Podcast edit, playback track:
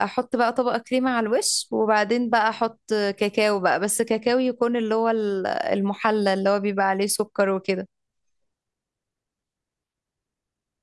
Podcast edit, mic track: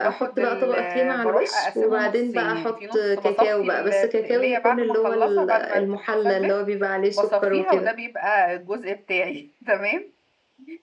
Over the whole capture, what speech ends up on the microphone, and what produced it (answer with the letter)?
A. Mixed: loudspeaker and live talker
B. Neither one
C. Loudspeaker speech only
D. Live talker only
A